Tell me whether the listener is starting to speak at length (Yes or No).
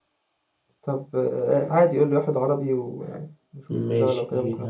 Yes